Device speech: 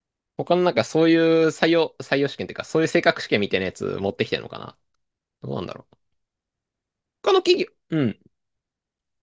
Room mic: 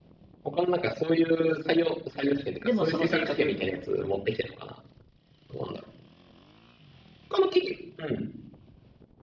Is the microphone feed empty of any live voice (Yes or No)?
No